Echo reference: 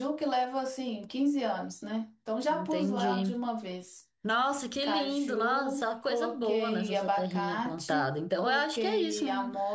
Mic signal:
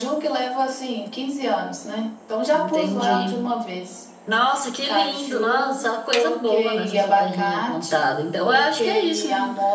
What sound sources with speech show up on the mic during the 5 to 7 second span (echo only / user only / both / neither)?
echo only